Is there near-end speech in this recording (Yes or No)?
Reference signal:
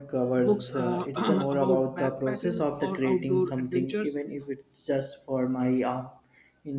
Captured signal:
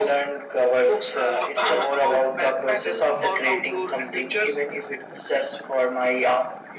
No